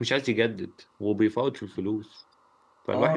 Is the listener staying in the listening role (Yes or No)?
No